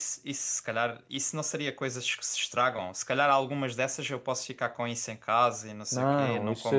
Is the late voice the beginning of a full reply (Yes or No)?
Yes